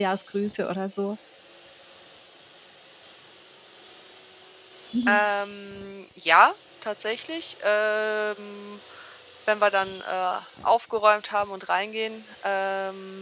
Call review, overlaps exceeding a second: none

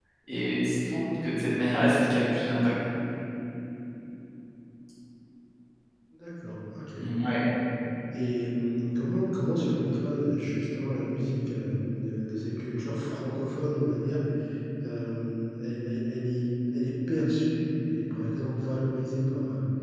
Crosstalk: none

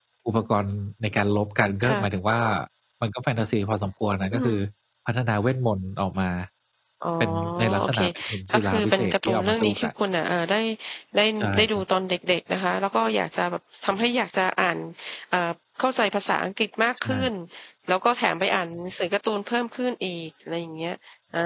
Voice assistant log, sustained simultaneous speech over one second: present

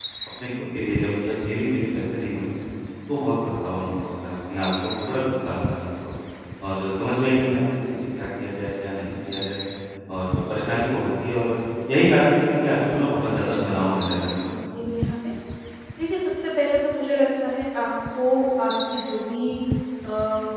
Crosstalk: present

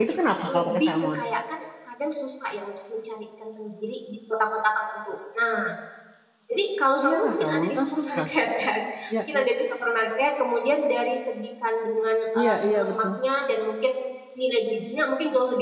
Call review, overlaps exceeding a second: present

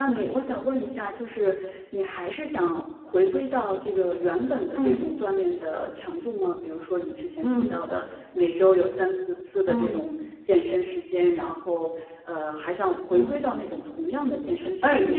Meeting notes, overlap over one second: none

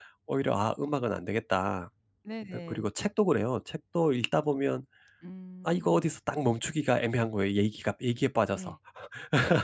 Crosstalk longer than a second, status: none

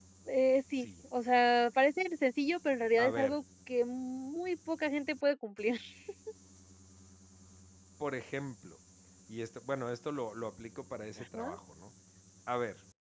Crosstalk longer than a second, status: none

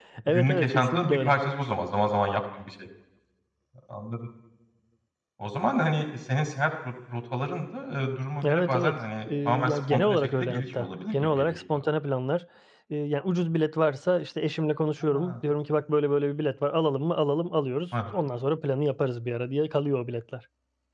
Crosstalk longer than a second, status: present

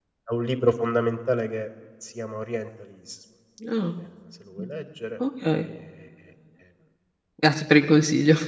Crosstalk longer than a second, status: none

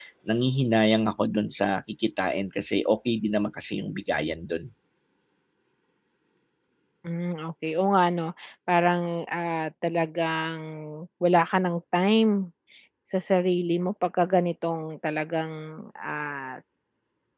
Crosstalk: none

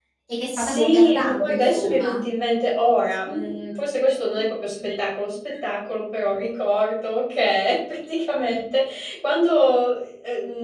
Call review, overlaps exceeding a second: present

